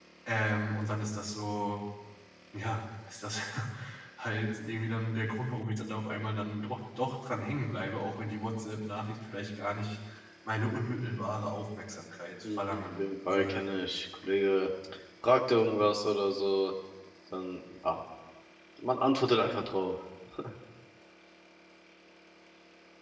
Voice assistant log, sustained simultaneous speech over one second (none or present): present